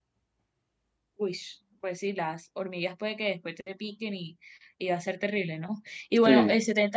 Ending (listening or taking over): listening